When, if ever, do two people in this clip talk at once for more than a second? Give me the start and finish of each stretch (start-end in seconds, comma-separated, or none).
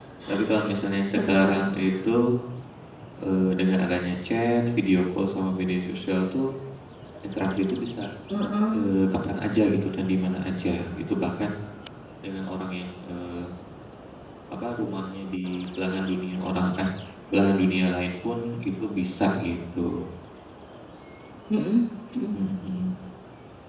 none